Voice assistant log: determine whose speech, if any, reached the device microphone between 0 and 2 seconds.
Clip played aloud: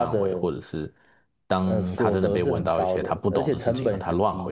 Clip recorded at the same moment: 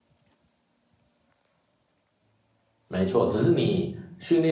neither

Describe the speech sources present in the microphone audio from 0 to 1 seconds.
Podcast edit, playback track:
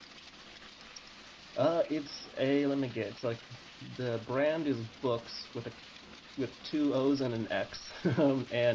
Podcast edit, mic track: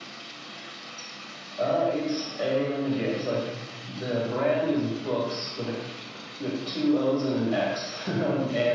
neither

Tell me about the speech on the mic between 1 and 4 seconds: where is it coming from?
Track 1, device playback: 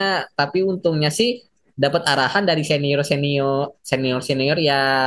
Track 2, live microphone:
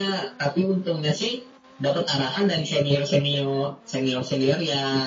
echo only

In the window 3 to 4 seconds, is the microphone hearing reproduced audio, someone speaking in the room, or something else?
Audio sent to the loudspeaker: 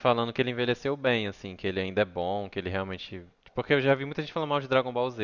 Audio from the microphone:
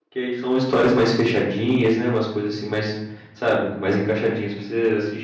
user only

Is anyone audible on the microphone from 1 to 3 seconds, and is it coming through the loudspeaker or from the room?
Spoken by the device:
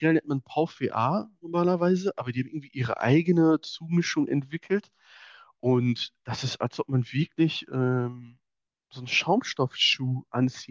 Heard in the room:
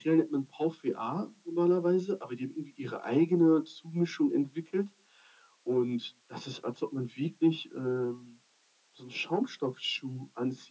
echo only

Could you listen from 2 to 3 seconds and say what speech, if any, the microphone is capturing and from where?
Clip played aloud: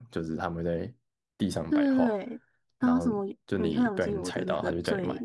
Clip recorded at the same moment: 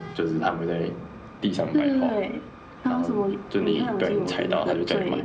echo only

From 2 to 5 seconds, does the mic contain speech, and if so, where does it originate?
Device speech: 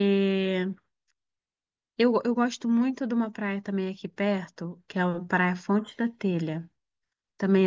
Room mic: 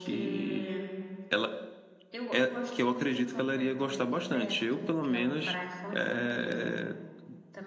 both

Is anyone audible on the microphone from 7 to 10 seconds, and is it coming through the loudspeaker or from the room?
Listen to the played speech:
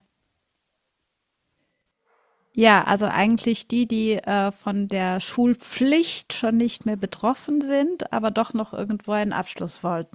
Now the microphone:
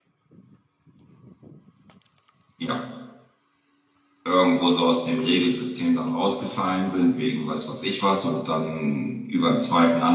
user only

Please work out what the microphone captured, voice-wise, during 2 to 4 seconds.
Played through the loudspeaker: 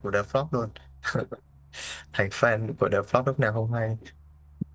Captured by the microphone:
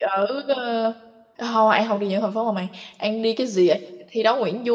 user only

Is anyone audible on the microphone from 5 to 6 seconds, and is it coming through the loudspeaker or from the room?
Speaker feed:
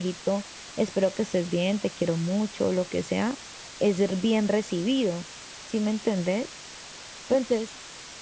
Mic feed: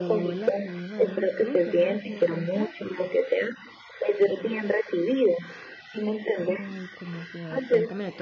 echo only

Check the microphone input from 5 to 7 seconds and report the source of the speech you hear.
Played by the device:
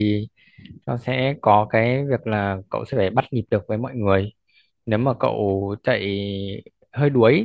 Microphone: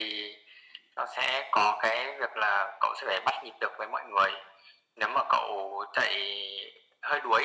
echo only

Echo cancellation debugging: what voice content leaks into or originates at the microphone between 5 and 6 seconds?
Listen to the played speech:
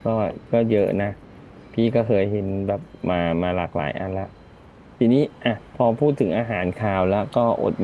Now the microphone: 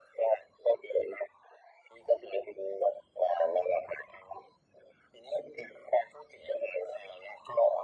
echo only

